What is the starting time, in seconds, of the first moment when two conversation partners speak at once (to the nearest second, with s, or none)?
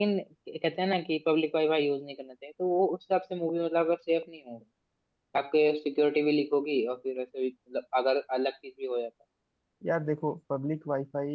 none